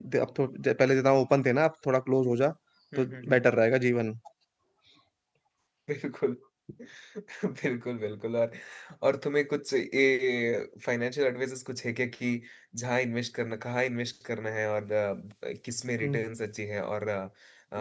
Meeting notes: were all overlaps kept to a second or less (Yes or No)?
Yes